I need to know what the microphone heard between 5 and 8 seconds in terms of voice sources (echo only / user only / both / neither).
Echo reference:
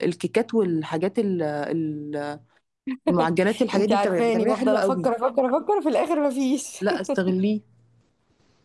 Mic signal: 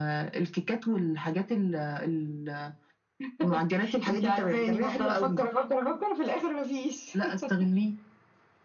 echo only